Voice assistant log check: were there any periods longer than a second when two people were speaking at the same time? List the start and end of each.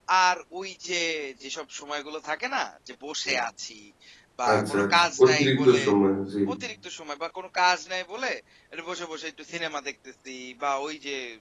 4.5-5.8

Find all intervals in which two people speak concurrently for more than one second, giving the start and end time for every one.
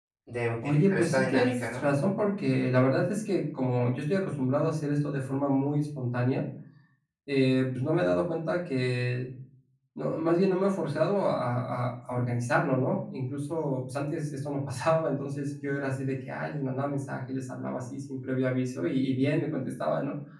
0.6-1.9

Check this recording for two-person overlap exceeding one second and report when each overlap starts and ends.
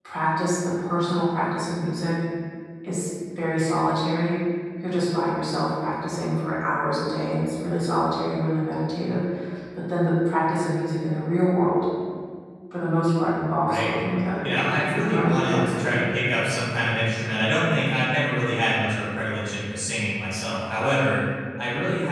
14.5-16.0

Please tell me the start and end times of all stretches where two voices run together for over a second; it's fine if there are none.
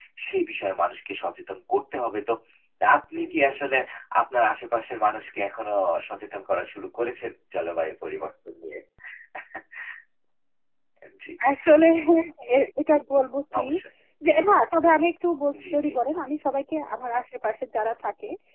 none

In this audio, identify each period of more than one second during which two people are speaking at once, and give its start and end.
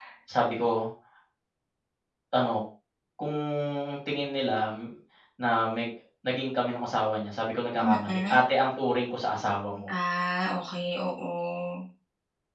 none

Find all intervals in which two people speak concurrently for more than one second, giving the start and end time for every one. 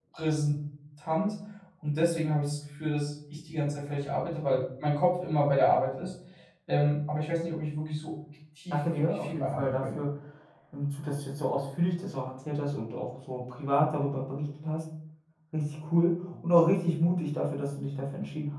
8.7-10.0

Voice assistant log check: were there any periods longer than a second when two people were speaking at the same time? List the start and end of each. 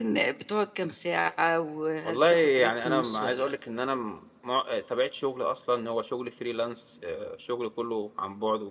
2.0-3.5

